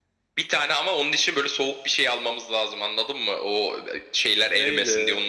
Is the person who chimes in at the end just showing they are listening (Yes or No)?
No